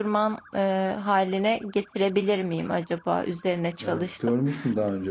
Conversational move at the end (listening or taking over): taking over